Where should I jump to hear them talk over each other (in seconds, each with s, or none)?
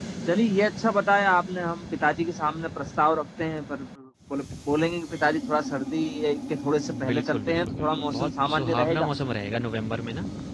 6.8 s